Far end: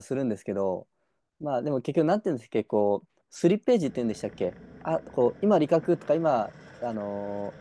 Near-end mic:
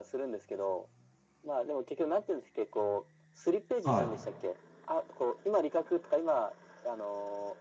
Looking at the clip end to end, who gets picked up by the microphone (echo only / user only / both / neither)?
both